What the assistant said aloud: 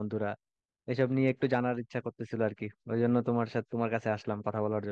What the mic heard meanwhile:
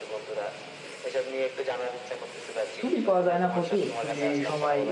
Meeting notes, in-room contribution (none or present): present